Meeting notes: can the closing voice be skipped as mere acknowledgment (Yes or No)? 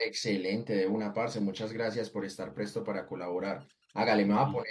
Yes